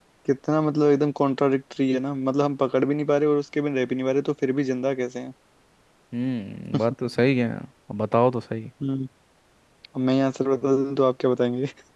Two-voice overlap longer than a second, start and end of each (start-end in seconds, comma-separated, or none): none